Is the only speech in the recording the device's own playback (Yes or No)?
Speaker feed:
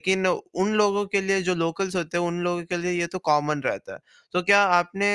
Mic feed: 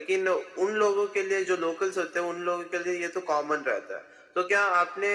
Yes